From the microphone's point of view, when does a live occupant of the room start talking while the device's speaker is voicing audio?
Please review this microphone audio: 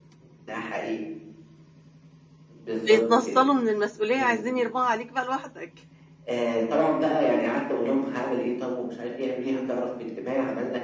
3 s

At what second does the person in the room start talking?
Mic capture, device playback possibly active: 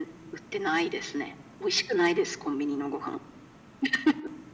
none

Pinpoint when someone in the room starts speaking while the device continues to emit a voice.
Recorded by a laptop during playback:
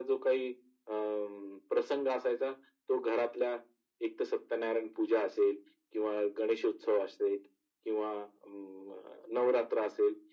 none

